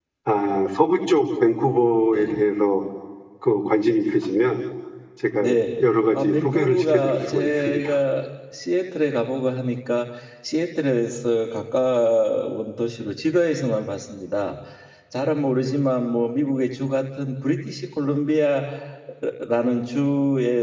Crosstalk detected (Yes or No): Yes